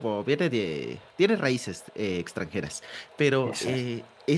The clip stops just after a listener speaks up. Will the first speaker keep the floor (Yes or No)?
Yes